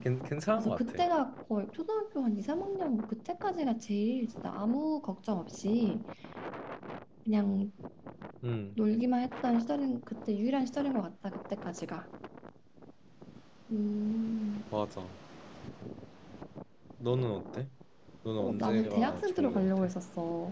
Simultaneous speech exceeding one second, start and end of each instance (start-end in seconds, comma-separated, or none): 18.4-19.9